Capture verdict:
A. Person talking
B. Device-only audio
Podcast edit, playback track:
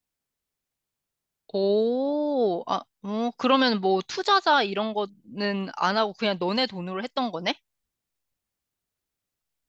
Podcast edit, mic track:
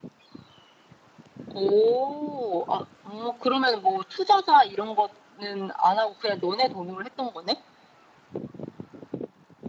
B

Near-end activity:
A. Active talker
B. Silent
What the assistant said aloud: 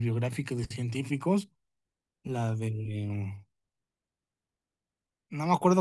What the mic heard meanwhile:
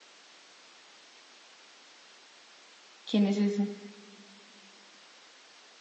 A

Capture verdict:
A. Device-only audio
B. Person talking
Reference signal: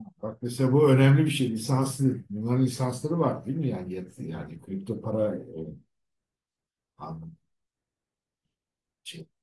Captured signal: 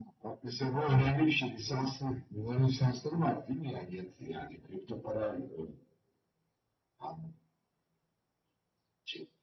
A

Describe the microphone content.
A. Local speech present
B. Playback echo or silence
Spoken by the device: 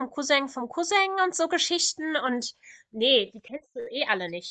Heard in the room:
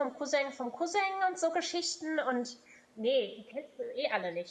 B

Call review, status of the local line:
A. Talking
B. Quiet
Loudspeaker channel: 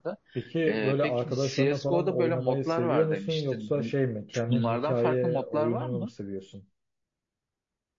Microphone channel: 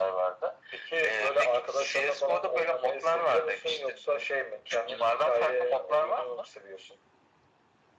B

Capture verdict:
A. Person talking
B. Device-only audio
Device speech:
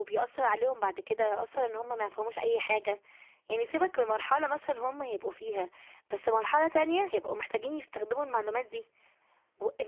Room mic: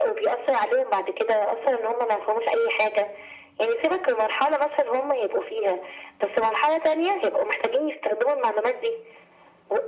B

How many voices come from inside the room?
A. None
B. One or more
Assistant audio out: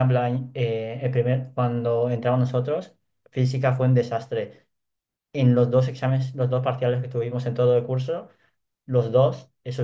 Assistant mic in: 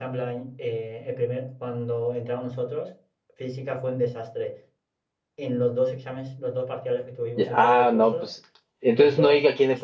B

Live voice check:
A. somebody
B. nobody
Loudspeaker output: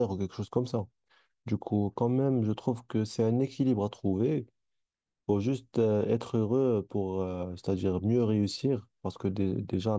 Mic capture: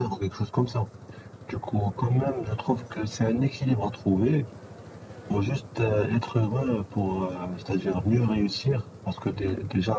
B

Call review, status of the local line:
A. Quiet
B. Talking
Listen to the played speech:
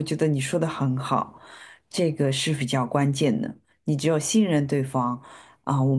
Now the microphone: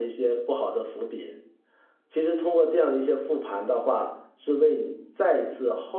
B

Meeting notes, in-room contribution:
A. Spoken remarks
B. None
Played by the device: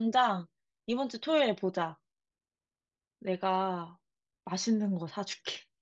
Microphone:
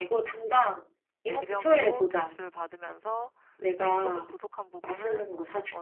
A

